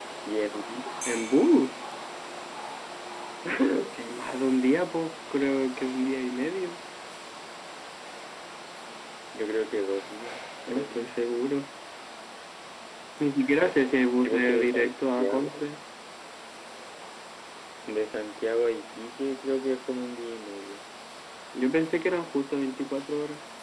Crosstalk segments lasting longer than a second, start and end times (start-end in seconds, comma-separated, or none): 14.2-15.7